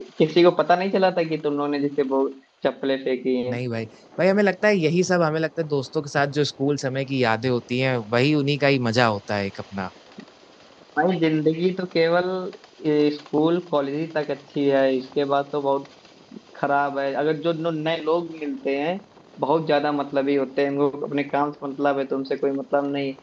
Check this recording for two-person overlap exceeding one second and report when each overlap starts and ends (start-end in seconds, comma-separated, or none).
none